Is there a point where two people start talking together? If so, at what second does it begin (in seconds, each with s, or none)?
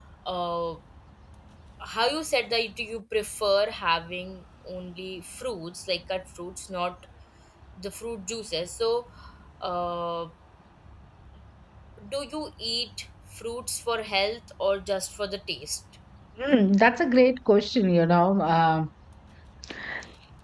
none